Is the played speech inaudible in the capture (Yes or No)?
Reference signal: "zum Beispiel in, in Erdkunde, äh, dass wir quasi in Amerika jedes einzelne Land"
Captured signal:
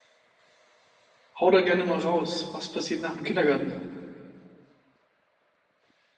Yes